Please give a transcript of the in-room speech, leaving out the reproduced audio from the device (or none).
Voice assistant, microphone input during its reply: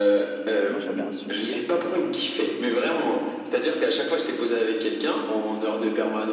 moi j'avais un souvenir.